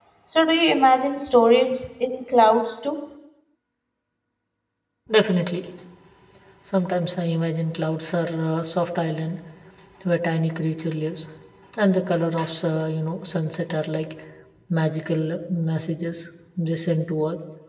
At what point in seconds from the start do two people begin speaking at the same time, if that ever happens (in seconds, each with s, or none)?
none